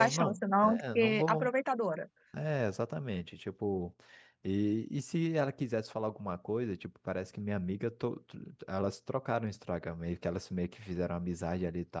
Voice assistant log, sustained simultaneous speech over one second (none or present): present